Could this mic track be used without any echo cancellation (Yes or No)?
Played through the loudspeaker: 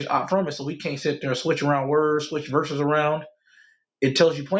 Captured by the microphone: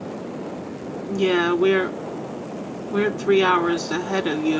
Yes